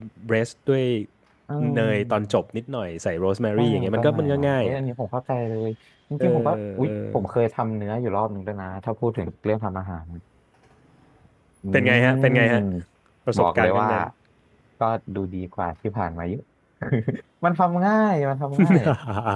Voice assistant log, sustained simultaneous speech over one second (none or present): present